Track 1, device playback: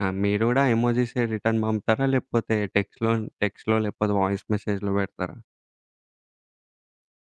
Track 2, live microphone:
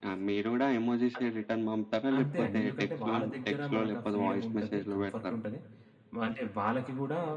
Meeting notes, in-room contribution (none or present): present